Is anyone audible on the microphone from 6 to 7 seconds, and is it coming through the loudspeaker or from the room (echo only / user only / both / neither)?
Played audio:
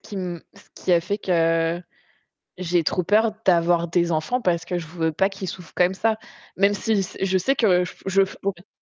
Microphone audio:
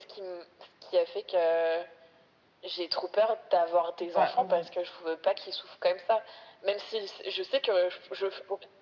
echo only